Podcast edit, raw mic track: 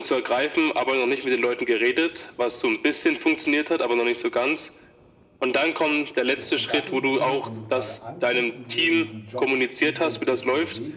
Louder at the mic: echo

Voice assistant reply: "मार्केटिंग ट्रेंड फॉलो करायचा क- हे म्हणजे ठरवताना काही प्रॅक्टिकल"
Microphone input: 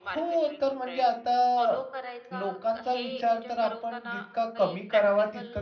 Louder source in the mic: user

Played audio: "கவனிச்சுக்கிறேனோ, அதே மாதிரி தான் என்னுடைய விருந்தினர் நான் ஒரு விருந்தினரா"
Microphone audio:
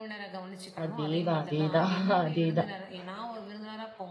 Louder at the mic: user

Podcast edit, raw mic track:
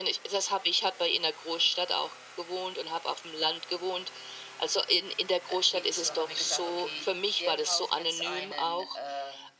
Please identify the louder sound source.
echo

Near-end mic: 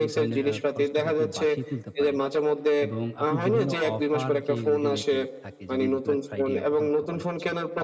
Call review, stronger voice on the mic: echo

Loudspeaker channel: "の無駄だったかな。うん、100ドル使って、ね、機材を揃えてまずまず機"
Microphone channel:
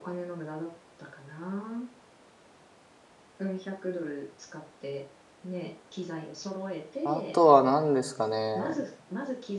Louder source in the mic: user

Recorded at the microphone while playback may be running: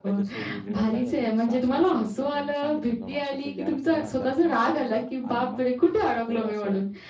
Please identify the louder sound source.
user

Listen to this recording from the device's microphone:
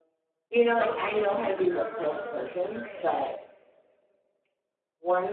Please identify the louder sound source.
echo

